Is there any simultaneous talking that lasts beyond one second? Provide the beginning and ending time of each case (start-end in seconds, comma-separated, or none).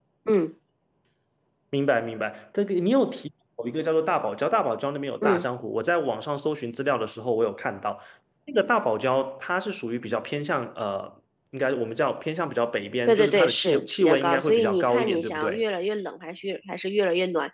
13.1-15.6